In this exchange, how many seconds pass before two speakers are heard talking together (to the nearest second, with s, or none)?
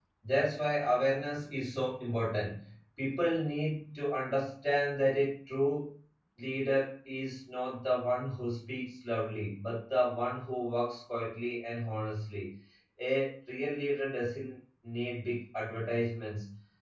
none